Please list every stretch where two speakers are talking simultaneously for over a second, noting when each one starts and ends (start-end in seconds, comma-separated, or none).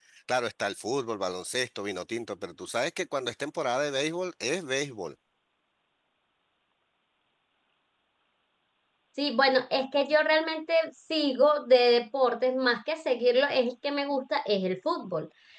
none